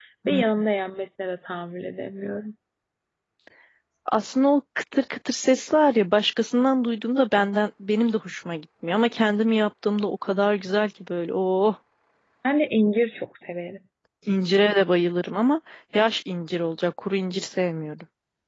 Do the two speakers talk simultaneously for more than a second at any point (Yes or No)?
No